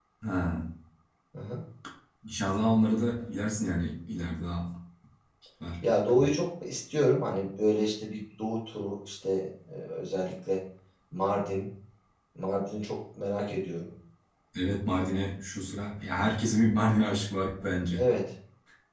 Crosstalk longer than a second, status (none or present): none